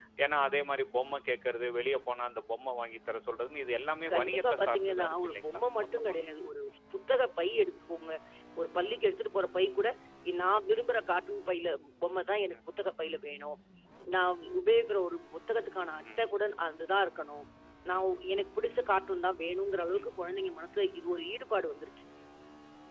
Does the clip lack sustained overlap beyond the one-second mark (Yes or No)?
No